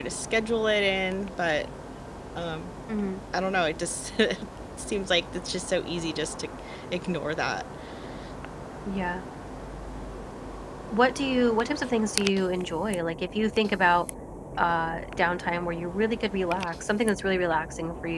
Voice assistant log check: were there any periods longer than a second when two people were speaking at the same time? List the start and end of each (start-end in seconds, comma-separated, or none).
none